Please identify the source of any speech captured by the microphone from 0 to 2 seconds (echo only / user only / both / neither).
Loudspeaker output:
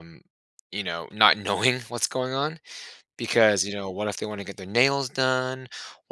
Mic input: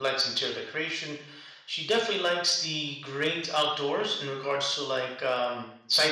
user only